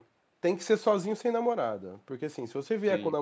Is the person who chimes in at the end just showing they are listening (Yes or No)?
Yes